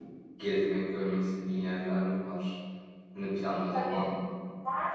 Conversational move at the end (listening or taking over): taking over